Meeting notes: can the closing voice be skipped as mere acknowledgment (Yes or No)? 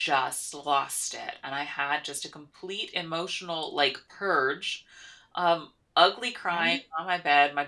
Yes